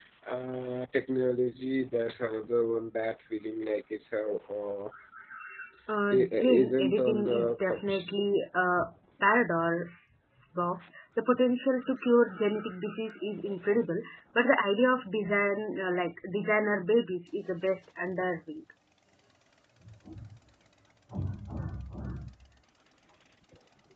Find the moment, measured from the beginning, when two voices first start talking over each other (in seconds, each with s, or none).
6.2 s